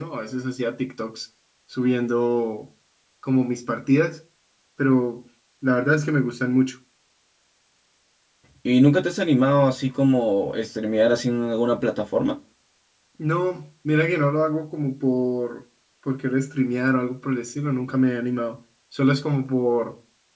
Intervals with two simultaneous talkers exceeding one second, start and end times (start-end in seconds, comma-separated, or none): none